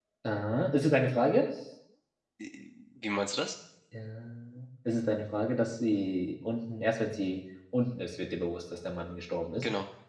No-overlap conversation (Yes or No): Yes